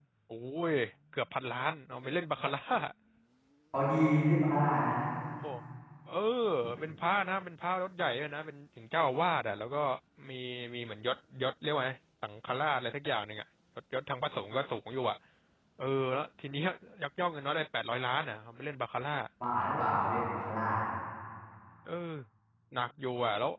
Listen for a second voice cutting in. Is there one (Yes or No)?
No